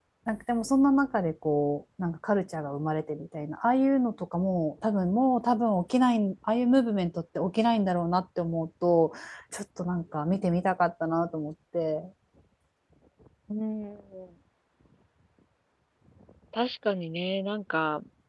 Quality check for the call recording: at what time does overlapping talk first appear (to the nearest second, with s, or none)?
none